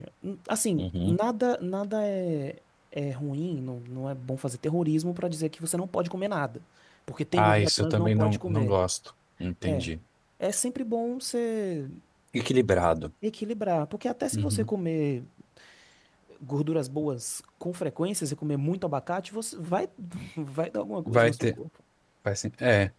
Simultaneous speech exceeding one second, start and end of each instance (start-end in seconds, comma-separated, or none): 7.3-8.8